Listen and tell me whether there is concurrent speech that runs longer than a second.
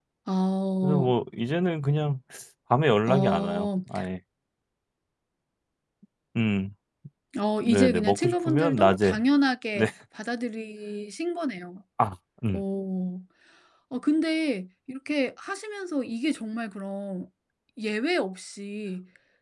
Yes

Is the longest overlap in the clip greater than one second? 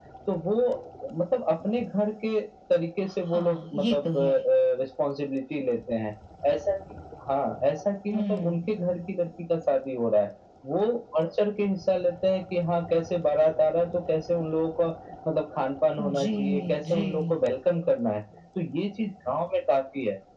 Yes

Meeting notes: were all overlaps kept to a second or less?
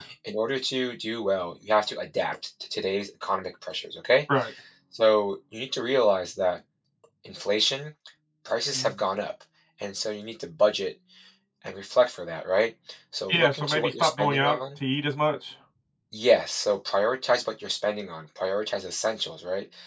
No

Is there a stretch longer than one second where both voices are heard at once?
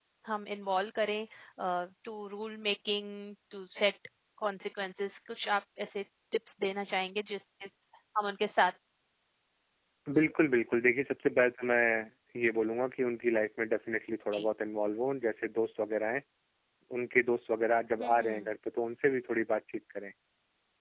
No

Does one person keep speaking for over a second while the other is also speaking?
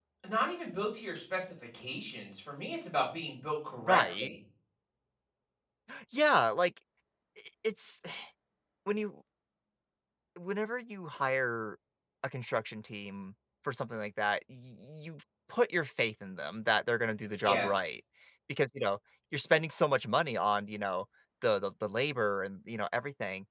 No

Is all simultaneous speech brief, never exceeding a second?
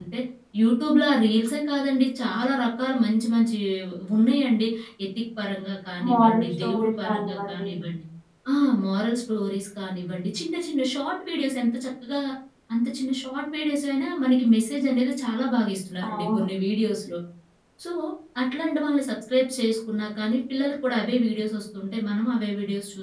No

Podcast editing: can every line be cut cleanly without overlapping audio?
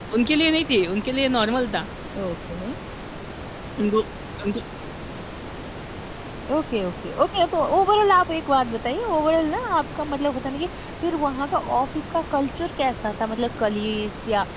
Yes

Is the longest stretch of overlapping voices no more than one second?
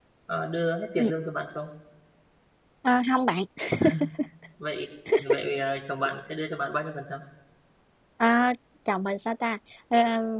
Yes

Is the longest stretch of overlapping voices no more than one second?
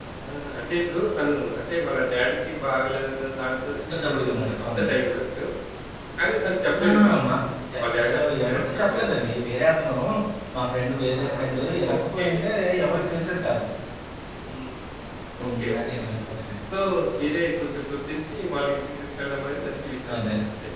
No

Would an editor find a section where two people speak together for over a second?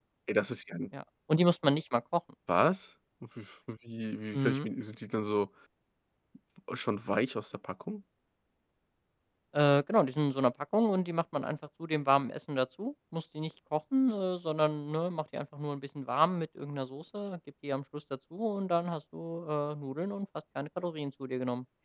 No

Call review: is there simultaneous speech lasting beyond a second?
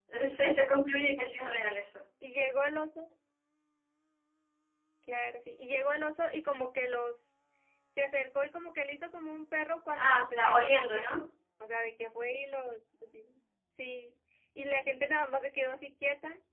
Yes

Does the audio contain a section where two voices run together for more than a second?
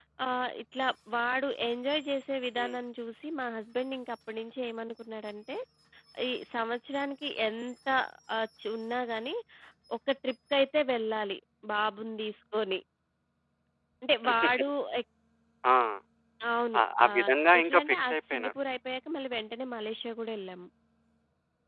Yes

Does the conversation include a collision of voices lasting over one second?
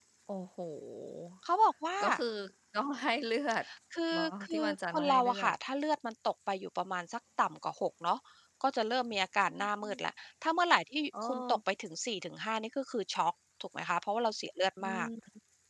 Yes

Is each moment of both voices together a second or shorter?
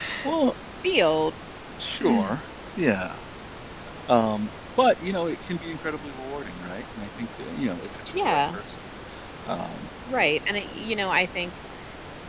Yes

